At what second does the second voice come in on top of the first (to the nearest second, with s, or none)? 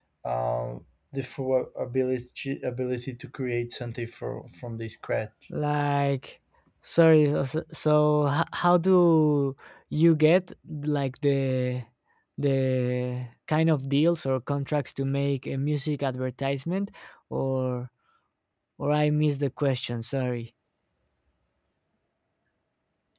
none